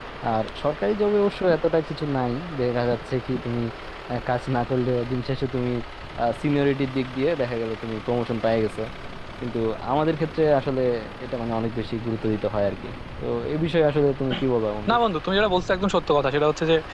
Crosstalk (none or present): none